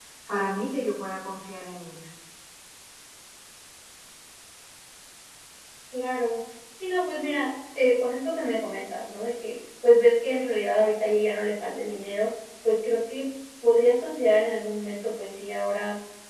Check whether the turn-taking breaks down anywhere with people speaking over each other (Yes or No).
No